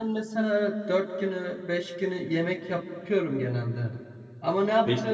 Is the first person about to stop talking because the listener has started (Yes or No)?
No